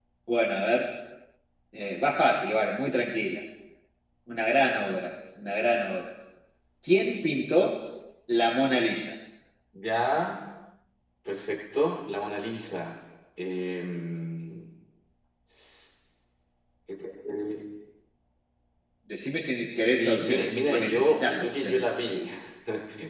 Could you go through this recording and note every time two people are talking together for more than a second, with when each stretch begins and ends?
19.7-22.2

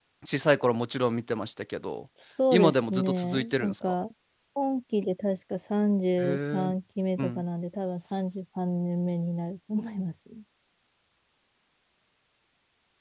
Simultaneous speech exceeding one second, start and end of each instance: 2.5-3.7

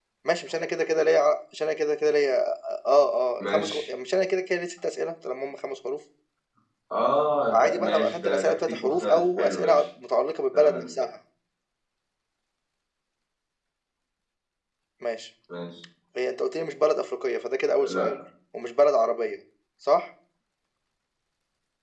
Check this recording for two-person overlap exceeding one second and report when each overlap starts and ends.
7.5-9.8

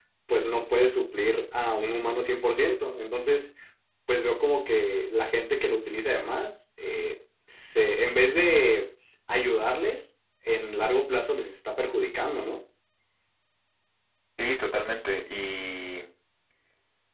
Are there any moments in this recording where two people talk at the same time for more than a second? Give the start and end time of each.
none

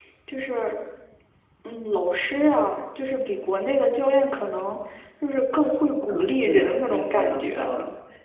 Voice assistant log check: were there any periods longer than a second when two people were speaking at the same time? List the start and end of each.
6.1-7.7

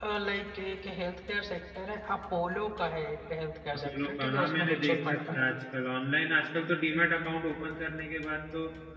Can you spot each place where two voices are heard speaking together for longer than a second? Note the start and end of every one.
3.8-5.4

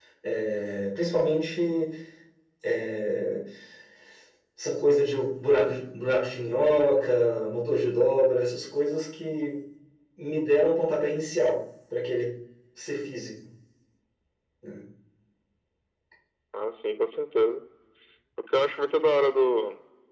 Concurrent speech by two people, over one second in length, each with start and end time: none

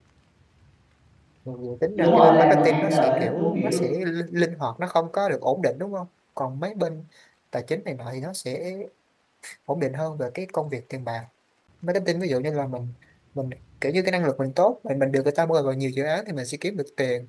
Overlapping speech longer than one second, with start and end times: 2.0-3.8

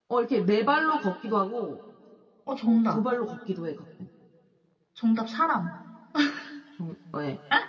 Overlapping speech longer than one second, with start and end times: none

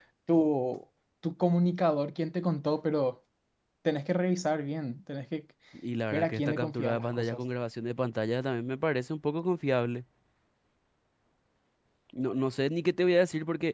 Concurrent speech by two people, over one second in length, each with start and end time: 6.1-7.4

